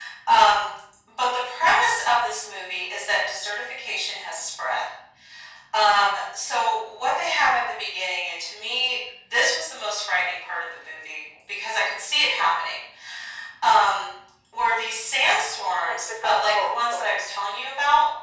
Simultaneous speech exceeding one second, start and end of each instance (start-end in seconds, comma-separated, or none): 15.4-17.4